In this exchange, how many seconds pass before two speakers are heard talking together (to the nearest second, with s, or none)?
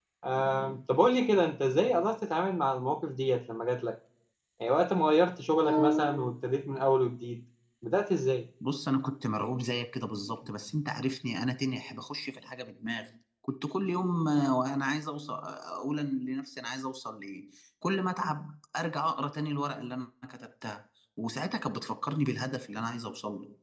none